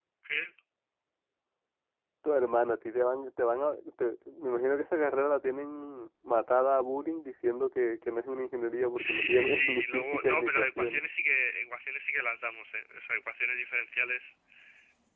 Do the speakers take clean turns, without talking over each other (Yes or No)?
No